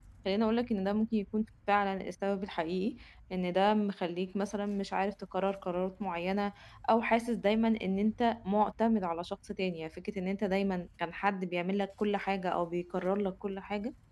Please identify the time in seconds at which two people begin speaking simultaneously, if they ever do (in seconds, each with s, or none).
none